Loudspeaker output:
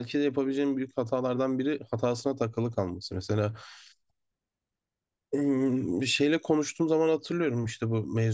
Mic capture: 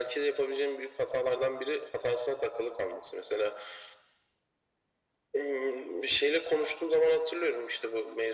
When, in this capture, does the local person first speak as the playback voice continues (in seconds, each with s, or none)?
none